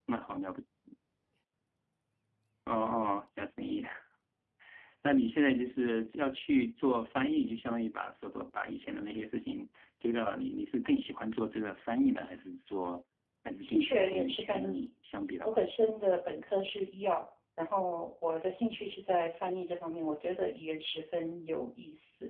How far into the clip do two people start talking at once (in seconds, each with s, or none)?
13.6 s